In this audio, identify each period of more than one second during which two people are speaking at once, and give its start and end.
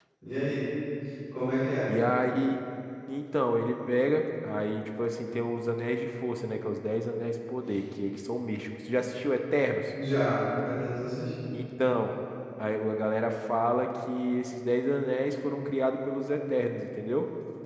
none

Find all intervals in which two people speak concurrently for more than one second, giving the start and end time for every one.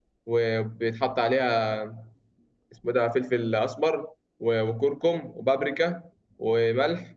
none

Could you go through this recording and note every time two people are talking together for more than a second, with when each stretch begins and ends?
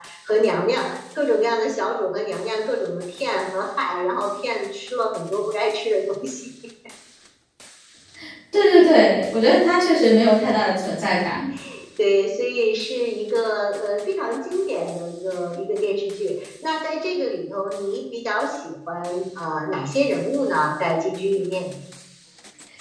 none

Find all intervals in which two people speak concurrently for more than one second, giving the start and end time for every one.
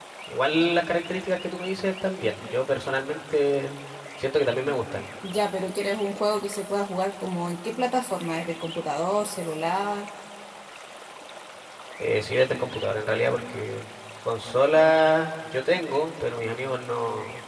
none

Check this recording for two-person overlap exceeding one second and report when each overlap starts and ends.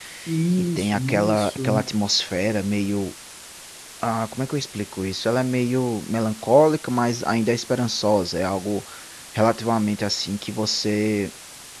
0.6-1.9

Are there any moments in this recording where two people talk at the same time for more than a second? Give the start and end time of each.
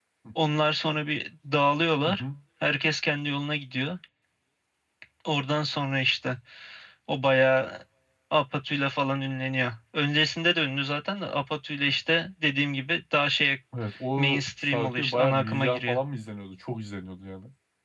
14.2-16.0

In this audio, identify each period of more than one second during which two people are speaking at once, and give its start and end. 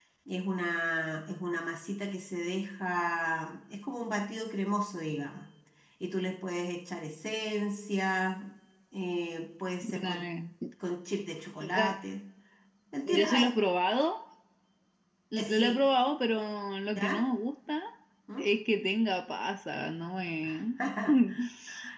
none

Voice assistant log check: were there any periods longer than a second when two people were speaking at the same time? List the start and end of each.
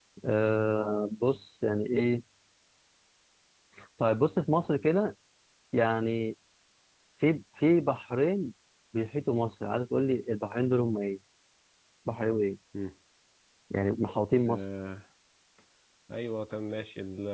none

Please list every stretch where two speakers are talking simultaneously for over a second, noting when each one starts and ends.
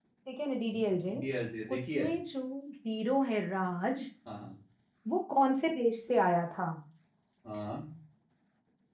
none

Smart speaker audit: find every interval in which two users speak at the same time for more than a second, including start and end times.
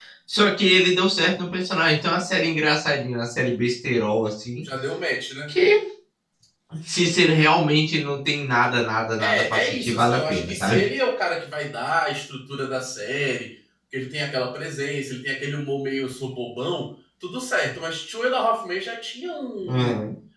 9.2-10.8

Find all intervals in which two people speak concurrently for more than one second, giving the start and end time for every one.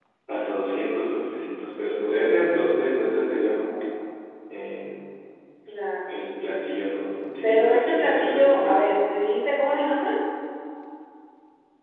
7.4-8.8

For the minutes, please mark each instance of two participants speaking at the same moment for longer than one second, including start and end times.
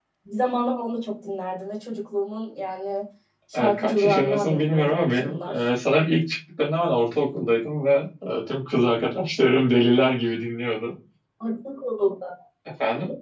3.5-5.6

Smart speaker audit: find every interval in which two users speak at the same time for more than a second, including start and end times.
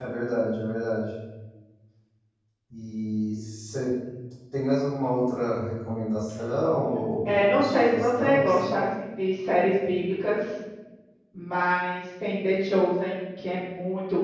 7.2-8.7

